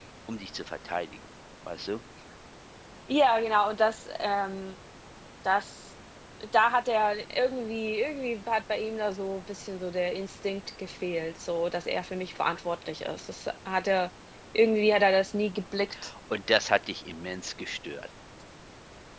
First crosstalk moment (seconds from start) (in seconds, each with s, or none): none